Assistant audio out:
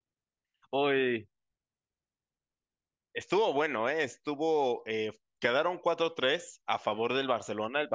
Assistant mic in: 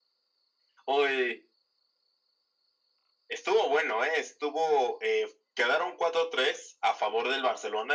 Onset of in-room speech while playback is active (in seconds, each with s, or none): none